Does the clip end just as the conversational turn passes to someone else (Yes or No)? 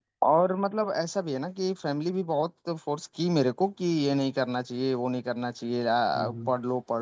No